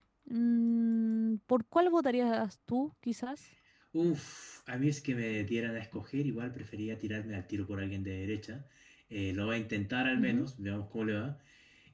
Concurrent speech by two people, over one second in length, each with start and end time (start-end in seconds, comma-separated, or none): none